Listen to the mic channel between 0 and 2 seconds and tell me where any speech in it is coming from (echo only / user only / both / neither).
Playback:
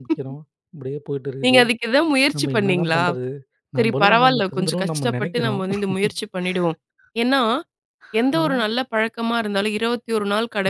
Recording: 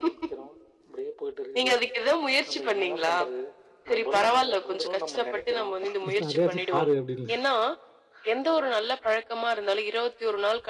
echo only